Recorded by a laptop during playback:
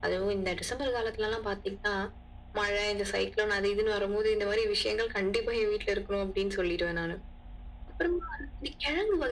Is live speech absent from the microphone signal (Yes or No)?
Yes